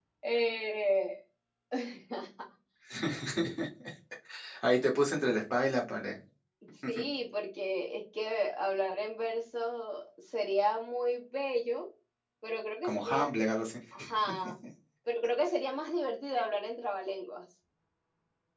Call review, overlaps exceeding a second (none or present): none